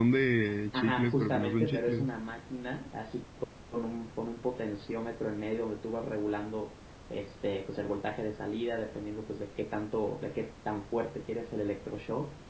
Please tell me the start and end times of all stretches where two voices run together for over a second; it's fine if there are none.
0.7-2.1

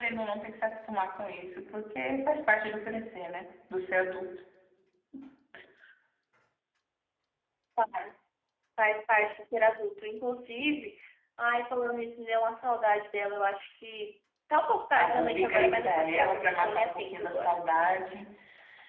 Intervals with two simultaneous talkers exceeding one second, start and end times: 15.0-17.7

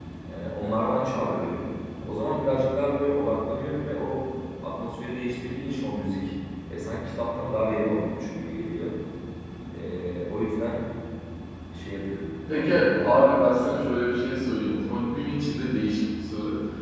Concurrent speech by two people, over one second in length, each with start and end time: 12.5-13.8

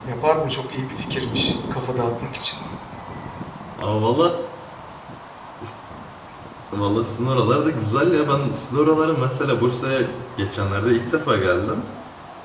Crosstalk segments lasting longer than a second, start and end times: none

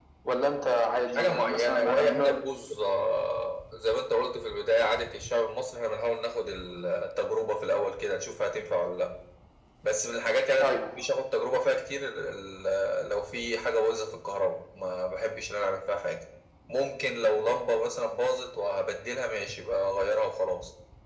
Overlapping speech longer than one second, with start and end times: 1.1-2.4

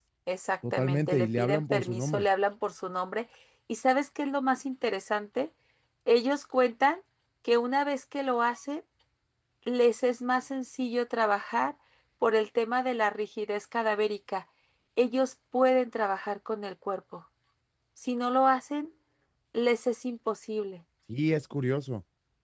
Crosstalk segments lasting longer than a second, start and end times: 0.7-2.2

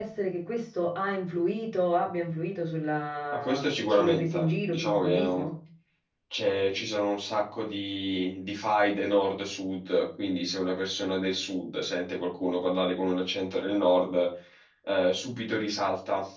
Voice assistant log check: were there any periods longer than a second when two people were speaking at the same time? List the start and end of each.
3.4-5.4

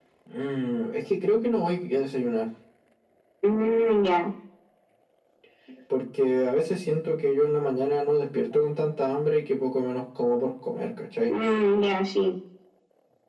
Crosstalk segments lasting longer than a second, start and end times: none

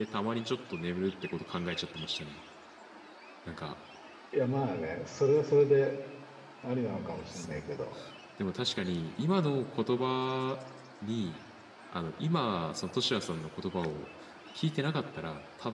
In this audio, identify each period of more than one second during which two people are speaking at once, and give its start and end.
none

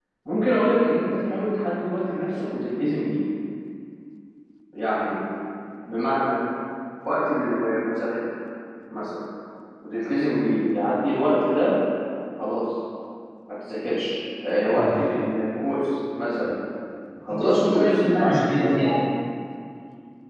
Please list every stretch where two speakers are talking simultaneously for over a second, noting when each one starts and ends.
17.4-18.9

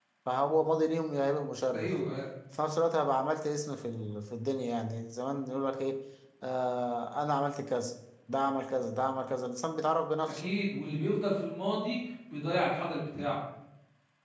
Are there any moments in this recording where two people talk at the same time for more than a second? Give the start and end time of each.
none

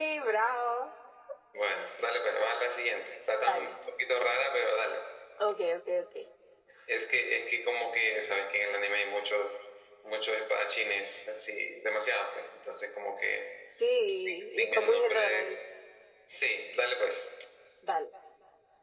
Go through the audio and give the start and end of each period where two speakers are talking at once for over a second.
14.1-15.6

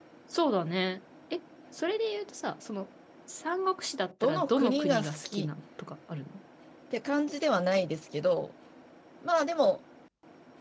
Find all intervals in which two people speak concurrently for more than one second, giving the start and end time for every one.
4.2-5.5

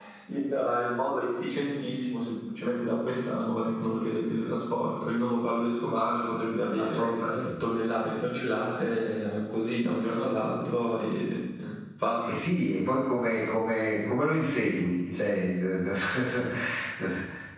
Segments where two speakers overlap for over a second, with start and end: none

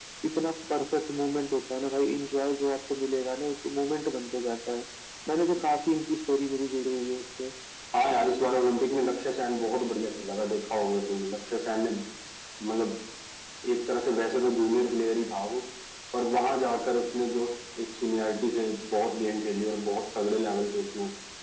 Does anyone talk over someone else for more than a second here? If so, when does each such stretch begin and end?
none

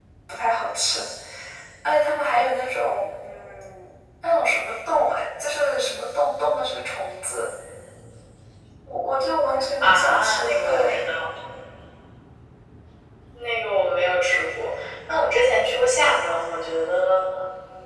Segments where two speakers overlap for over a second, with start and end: 9.8-11.1

